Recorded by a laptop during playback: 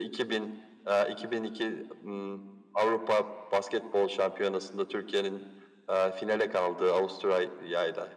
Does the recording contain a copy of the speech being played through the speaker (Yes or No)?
Yes